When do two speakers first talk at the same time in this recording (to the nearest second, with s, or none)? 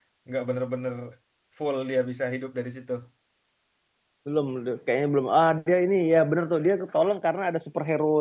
none